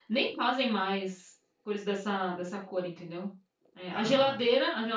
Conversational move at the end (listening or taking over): listening